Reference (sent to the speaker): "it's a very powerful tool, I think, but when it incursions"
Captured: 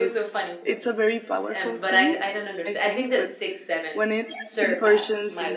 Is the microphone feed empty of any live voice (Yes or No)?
No